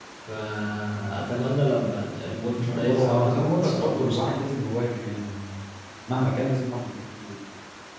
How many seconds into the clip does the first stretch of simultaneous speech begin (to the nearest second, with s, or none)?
2 s